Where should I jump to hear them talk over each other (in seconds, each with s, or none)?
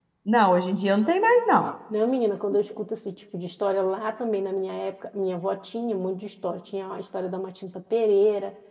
none